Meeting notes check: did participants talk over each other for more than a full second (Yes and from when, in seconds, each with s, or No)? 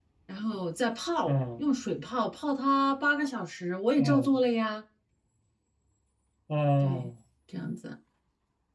No